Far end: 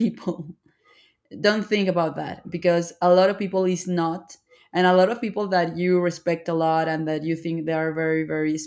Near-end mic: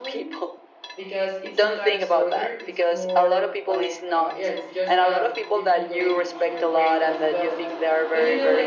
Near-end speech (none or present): present